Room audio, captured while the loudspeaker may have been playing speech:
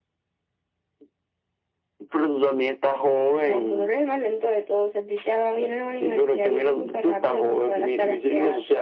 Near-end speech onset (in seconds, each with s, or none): none